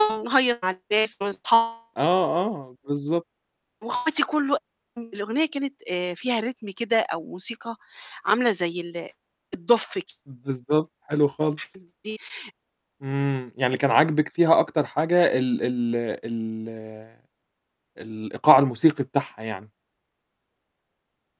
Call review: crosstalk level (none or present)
none